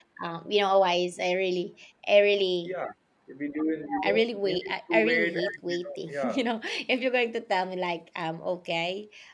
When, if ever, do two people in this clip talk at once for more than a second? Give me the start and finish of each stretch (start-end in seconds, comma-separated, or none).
4.0-6.4